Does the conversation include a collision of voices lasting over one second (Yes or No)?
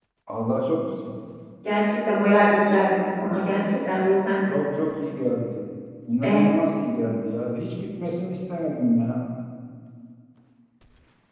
No